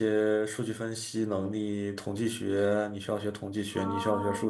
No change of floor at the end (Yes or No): Yes